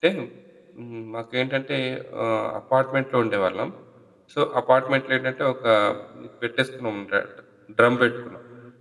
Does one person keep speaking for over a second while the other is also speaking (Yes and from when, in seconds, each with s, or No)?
No